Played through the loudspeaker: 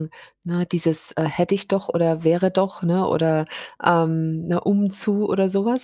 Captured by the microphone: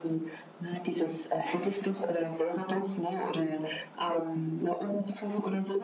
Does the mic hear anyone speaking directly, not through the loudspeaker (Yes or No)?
No